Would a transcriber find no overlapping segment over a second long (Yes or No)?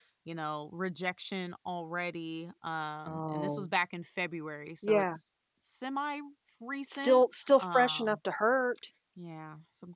No